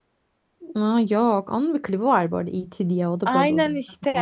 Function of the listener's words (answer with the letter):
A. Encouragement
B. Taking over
B